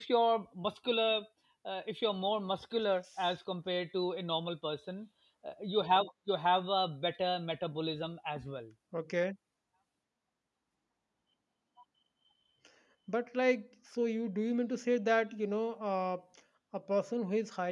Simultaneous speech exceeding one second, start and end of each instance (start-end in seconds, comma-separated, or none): none